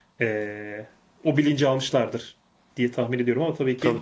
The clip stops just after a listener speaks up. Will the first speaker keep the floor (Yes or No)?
No